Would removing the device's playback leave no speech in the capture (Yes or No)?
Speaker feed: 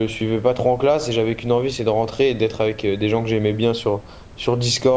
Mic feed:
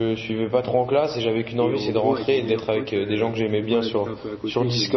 No